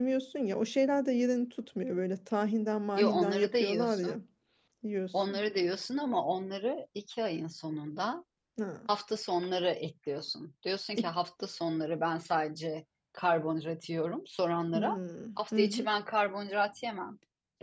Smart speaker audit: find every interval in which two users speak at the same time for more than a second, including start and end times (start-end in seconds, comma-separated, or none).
3.0-4.2